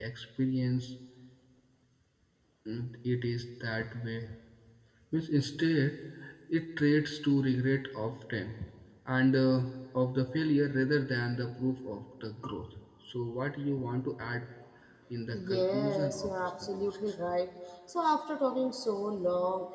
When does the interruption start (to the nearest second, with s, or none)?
15 s